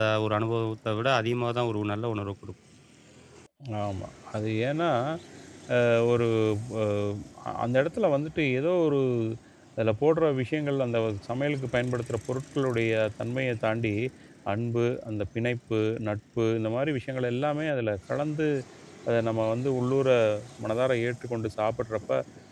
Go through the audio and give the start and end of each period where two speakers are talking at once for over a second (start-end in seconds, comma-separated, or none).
none